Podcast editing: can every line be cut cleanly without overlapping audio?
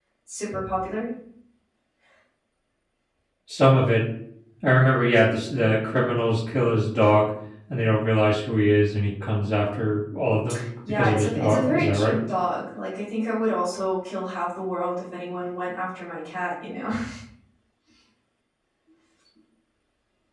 No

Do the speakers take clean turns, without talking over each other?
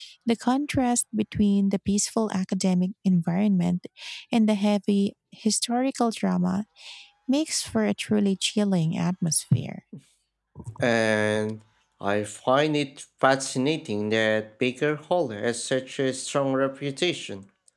Yes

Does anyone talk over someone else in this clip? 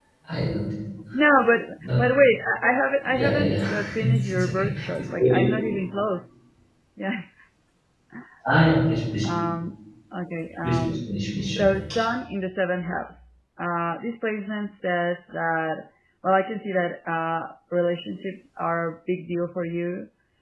Yes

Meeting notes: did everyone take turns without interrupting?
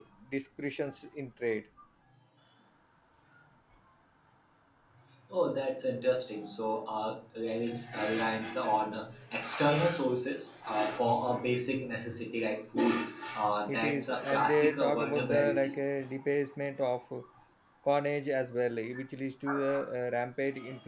No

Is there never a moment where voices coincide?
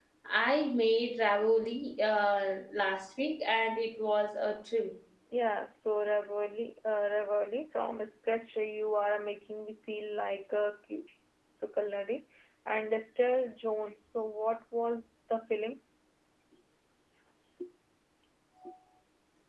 Yes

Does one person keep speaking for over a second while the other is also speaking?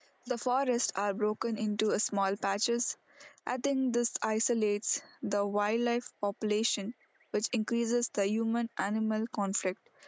No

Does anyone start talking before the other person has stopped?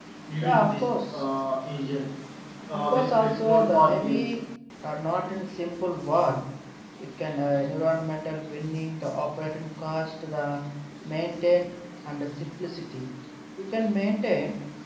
Yes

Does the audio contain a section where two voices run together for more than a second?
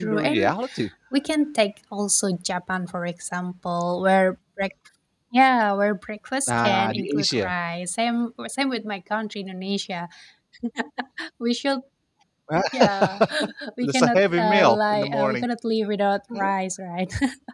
Yes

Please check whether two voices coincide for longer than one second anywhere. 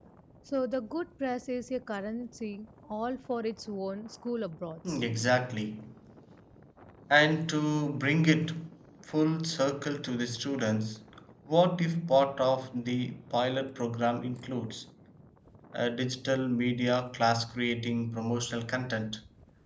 No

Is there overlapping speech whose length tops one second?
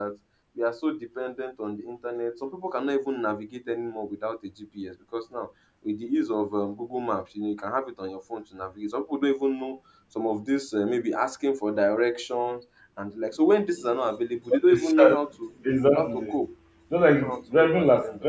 Yes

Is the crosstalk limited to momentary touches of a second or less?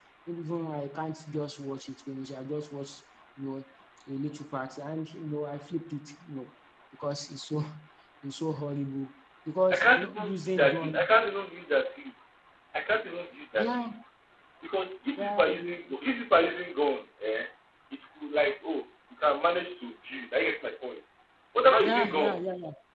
No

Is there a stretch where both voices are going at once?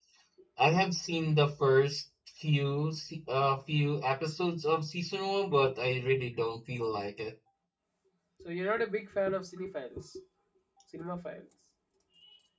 No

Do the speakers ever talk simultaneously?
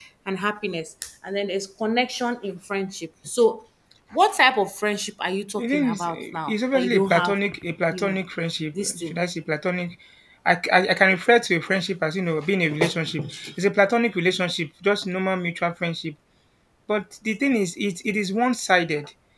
Yes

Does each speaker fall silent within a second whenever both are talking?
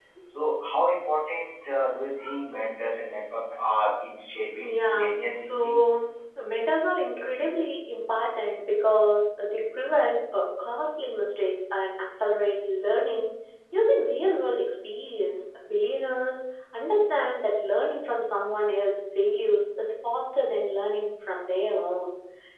No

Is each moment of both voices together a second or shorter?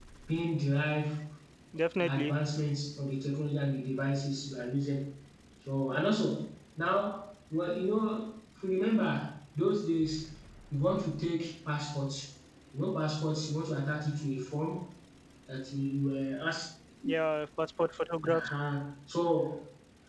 Yes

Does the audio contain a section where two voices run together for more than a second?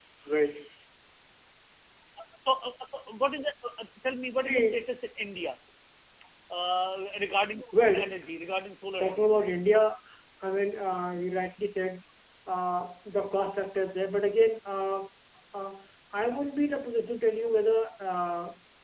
No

